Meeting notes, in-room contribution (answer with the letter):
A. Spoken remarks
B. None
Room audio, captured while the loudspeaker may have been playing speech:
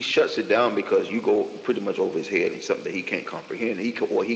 B